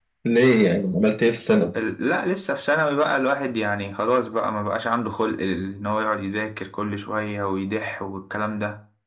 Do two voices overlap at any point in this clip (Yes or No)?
No